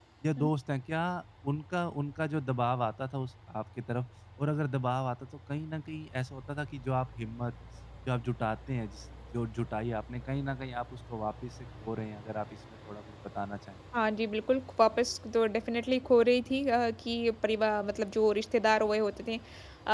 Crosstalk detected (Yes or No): No